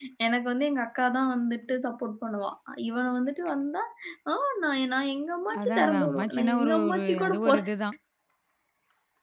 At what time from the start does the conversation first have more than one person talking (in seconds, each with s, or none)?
5.5 s